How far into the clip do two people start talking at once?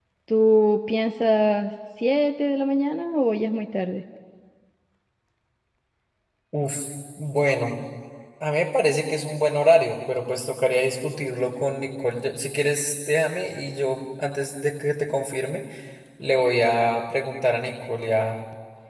none

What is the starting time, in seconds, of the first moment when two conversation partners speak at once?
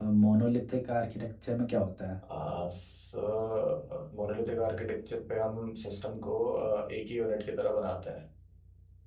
none

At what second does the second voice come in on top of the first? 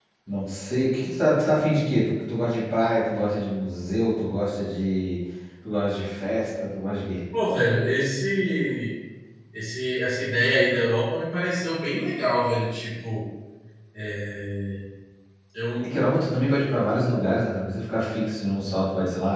none

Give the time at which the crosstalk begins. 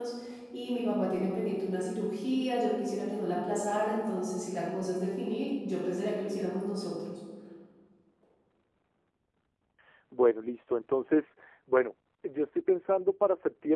none

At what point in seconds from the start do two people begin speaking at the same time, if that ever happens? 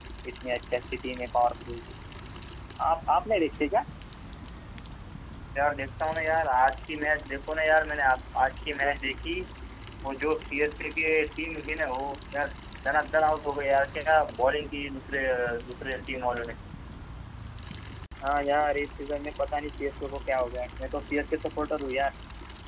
none

